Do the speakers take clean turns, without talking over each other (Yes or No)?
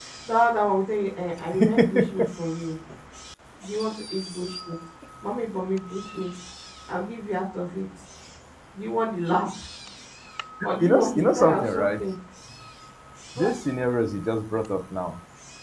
No